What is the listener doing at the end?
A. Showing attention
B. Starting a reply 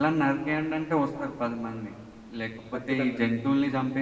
A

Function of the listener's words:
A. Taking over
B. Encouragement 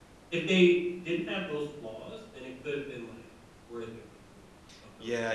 A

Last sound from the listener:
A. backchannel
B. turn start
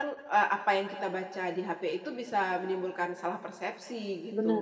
B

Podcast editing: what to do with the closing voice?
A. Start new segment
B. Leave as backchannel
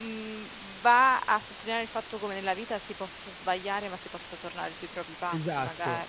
A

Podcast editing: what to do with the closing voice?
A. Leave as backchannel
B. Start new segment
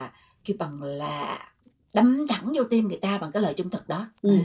B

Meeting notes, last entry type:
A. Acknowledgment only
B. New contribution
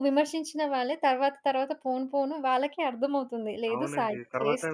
B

